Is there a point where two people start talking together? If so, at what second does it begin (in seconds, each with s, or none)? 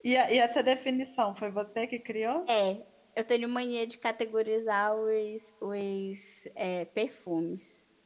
none